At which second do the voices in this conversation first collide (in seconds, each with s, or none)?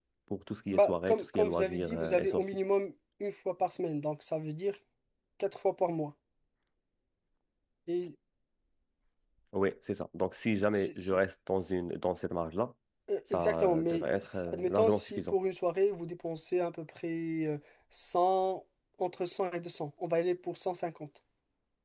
0.7 s